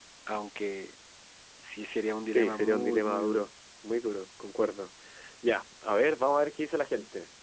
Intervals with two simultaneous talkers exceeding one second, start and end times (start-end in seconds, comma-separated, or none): 2.3-3.5